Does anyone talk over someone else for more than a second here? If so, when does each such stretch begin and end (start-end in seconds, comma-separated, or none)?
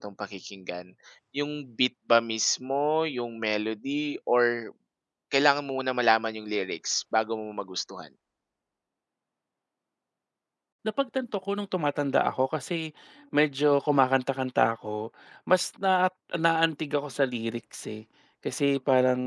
none